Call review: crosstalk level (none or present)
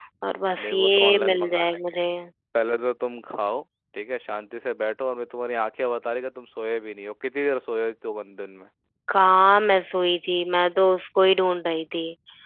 present